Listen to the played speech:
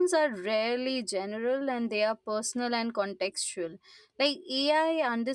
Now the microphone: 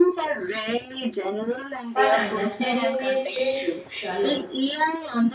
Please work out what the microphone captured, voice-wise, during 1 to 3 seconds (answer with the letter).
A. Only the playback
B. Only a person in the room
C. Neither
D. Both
D